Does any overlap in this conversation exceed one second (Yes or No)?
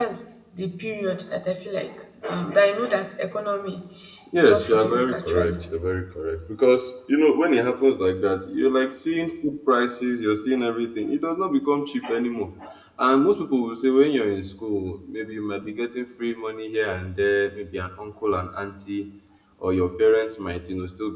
Yes